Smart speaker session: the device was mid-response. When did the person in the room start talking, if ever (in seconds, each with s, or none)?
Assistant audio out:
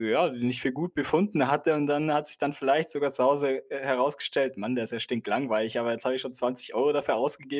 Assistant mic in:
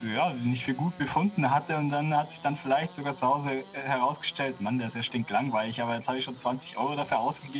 none